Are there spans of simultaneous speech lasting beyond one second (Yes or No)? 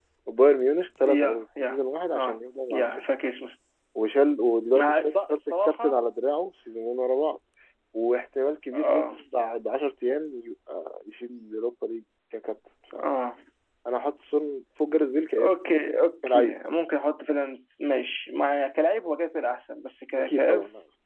Yes